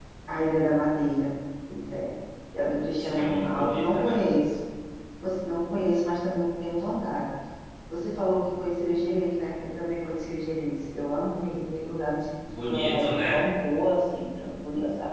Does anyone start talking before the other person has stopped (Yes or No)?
Yes